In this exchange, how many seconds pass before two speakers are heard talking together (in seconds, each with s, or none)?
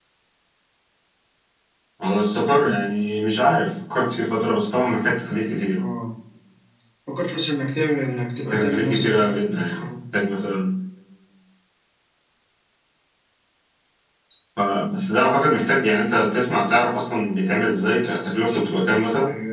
8.5 s